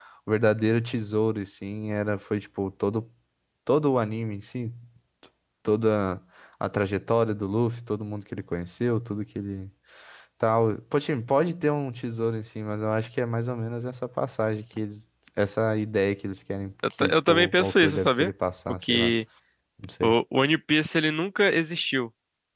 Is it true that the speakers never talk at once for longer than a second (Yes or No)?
No